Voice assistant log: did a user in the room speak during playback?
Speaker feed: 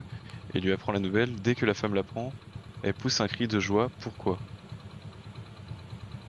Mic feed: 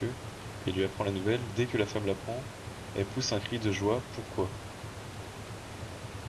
No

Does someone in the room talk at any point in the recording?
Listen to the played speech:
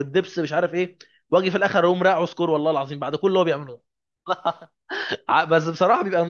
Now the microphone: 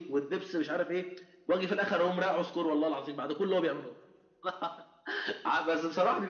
No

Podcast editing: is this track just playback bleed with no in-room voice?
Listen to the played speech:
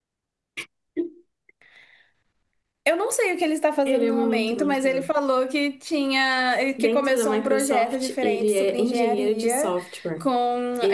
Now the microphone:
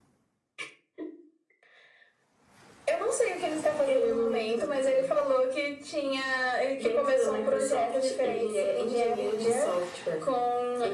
Yes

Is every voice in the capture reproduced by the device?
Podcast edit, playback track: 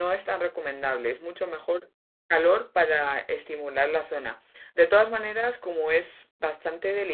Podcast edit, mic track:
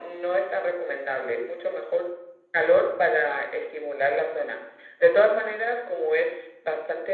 Yes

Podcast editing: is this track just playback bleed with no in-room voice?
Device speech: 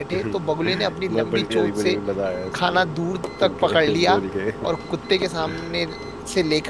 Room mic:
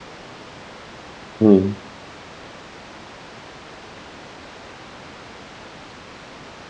No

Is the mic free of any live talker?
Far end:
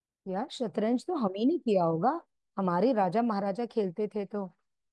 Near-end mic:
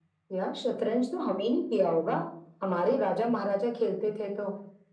Yes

